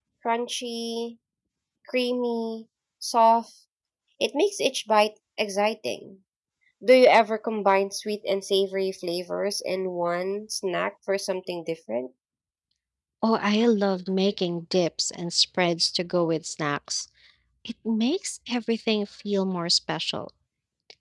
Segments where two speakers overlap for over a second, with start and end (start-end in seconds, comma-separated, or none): none